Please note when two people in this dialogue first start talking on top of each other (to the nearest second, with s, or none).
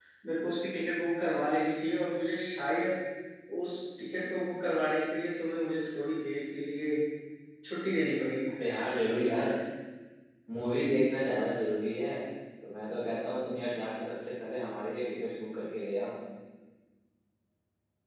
none